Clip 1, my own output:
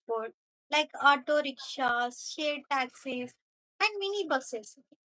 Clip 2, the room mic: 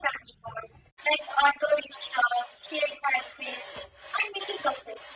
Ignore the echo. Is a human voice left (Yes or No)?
No